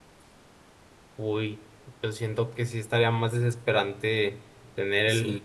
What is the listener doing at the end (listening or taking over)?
listening